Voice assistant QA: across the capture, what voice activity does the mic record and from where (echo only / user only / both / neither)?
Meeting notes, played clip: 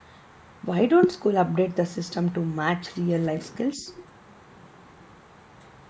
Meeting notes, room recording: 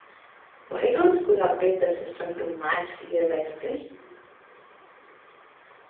echo only